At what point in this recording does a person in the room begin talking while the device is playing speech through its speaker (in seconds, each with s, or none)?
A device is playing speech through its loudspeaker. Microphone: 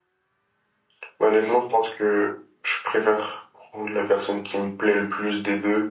none